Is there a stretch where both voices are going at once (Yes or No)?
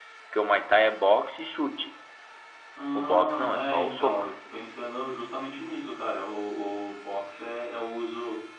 Yes